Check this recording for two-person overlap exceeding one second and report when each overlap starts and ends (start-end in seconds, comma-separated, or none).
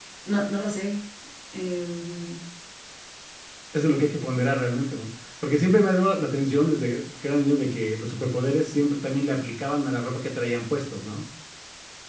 none